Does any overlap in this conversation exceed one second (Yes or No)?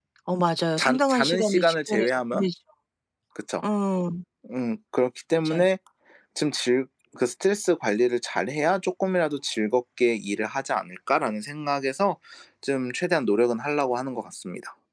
Yes